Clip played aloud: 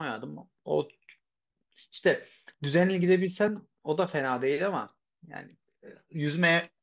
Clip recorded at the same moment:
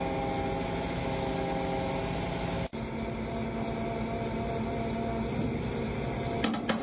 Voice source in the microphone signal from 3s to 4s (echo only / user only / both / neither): neither